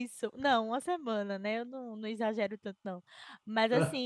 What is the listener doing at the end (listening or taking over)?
listening